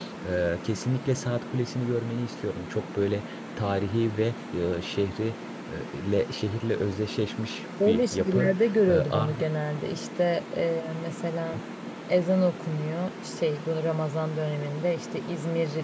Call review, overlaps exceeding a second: present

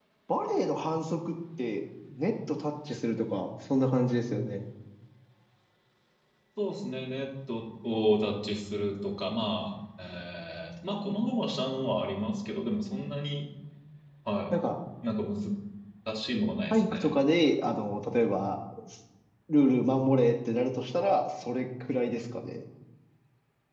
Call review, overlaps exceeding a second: none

